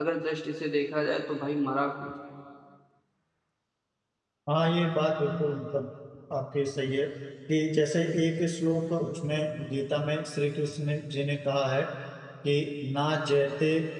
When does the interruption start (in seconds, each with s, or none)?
none